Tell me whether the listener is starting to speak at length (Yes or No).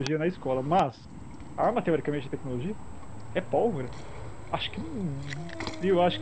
Yes